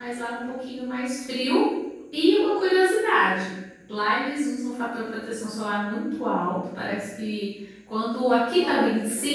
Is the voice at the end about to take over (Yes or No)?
No